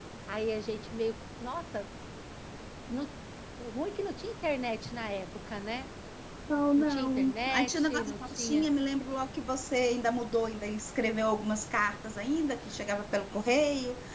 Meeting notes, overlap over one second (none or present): present